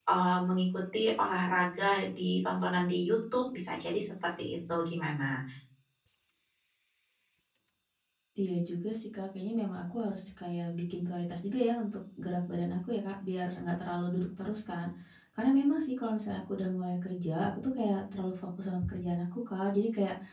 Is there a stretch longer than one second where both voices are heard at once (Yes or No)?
No